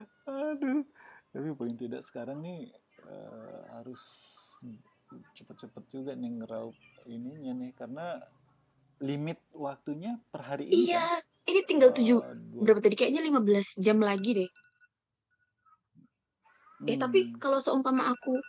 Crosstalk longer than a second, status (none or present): none